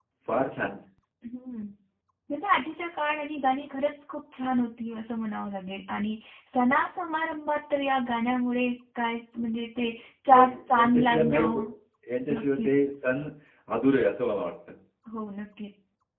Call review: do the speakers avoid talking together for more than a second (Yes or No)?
No